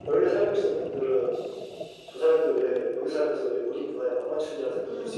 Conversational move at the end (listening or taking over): taking over